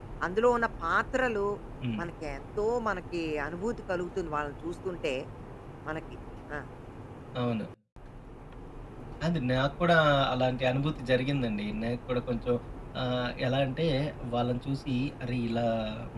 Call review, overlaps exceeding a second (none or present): none